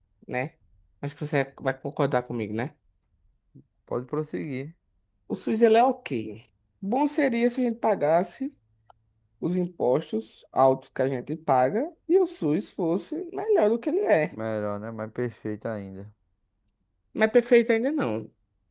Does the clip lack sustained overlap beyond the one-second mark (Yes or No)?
Yes